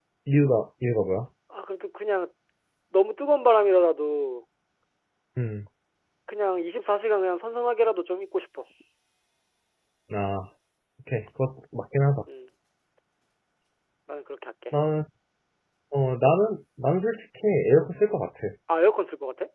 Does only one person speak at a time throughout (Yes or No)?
Yes